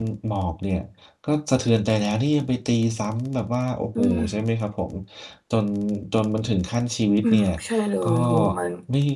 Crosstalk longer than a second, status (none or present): none